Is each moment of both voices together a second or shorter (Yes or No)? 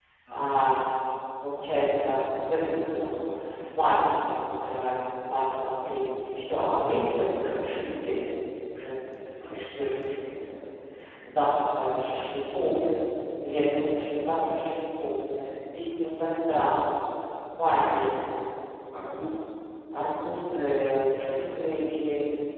Yes